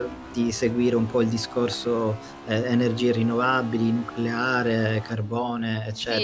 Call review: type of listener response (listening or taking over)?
taking over